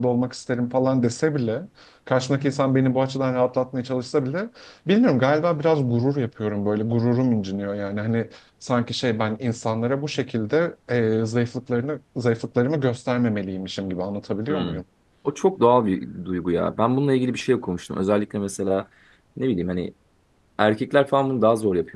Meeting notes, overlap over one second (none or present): none